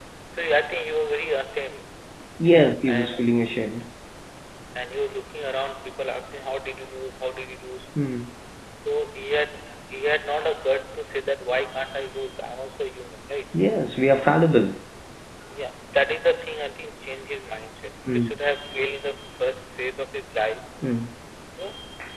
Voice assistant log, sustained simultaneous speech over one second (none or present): none